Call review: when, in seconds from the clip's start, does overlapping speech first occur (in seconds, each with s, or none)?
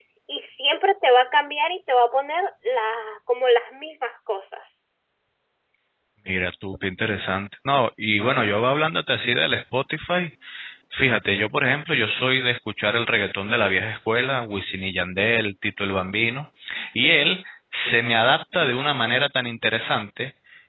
none